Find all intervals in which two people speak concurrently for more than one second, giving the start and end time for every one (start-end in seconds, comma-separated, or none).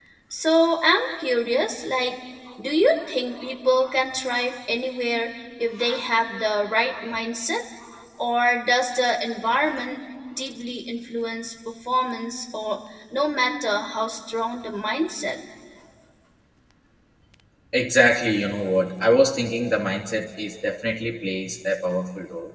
none